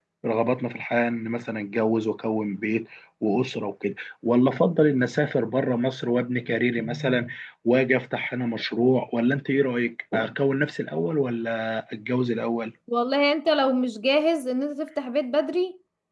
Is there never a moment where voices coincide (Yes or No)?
Yes